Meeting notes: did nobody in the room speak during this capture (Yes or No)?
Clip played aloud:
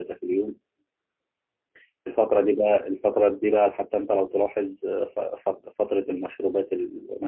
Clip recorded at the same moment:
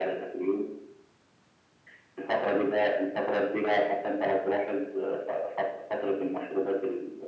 Yes